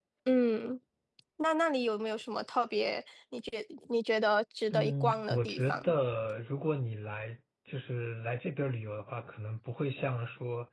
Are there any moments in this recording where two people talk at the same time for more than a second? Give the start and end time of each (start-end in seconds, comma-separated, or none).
4.7-5.9